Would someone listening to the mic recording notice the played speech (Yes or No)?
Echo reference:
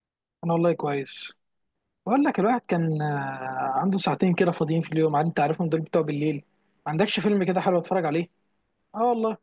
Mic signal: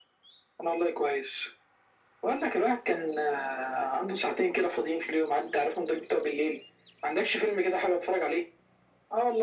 Yes